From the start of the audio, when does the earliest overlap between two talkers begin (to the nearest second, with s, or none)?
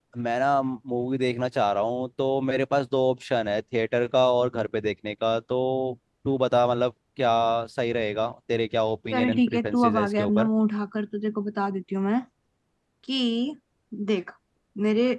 9 s